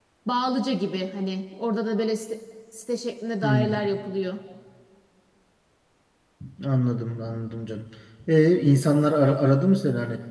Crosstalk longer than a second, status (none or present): none